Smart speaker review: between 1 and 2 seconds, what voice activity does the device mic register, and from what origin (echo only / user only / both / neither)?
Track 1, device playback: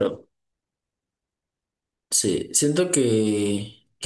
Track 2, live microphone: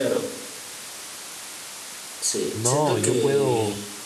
neither